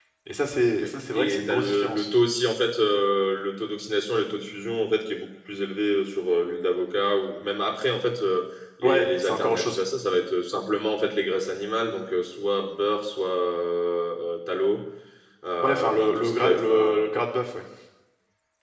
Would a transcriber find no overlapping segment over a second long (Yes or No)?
No